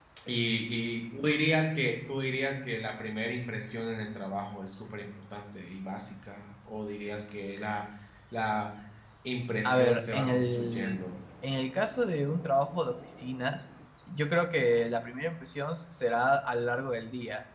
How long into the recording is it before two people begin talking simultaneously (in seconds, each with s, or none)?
9.6 s